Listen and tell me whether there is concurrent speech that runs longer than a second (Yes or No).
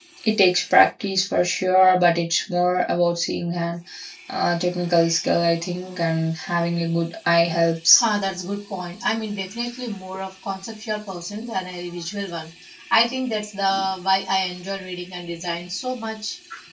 No